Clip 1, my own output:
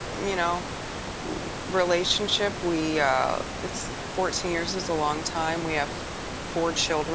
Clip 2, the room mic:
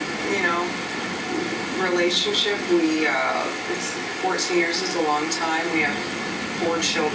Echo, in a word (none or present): present